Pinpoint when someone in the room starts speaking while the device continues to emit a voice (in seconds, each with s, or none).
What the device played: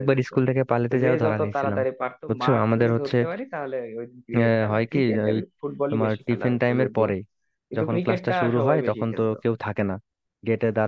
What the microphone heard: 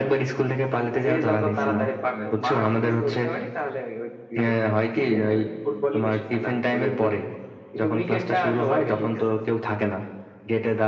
1.4 s